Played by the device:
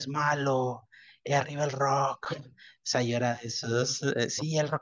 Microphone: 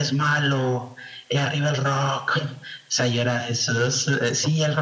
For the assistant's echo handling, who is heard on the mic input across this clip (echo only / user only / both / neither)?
echo only